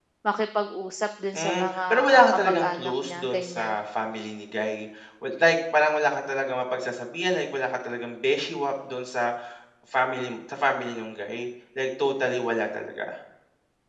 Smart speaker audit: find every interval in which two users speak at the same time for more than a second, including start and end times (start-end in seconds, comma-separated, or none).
1.4-3.7